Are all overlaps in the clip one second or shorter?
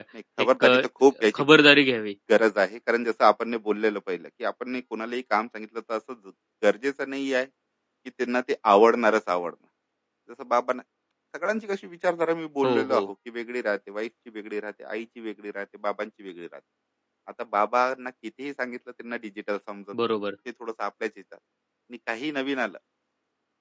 Yes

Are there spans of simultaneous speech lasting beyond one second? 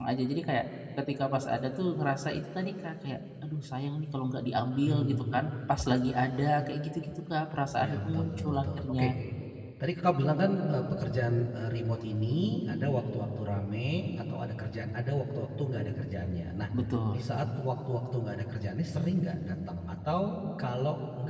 Yes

